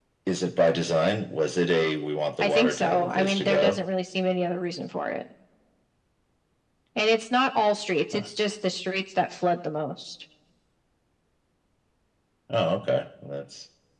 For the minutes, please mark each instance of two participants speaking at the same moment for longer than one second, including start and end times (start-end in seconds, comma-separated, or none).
2.4-3.8